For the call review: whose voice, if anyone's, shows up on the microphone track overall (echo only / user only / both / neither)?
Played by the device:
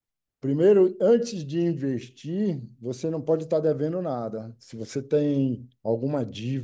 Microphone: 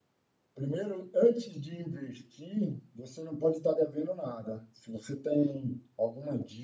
echo only